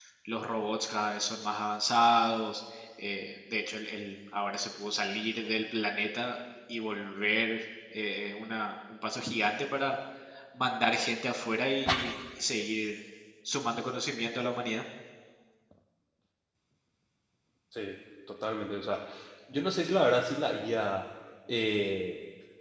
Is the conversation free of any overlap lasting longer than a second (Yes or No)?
Yes